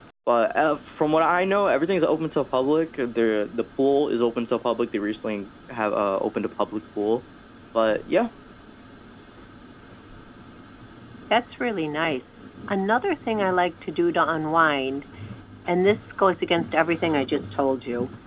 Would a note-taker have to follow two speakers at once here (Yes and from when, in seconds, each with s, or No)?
No